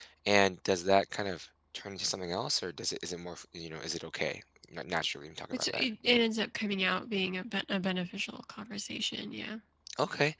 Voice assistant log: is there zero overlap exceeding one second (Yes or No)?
Yes